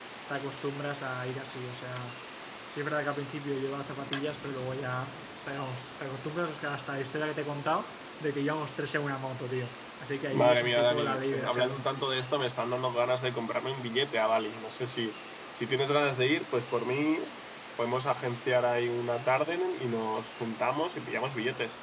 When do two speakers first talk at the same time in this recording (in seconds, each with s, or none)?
10.3 s